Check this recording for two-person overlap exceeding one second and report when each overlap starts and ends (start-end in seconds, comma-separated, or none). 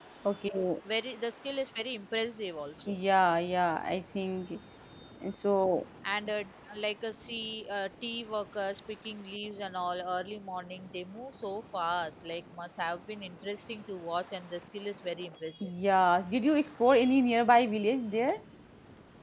none